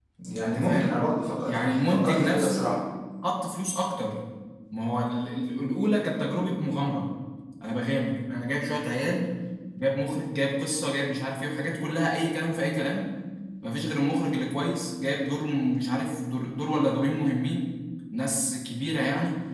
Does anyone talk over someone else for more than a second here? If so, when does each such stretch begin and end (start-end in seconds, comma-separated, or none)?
1.5-2.7